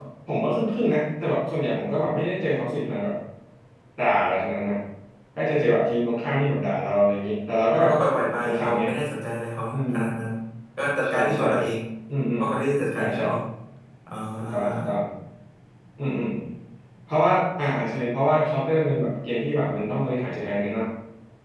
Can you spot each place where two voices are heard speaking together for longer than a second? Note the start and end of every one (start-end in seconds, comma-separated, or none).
none